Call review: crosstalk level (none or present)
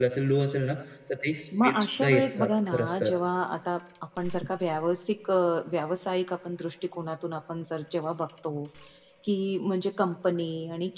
present